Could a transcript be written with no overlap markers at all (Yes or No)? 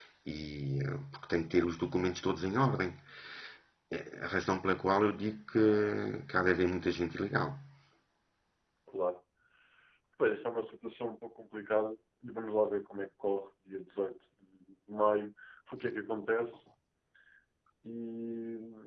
Yes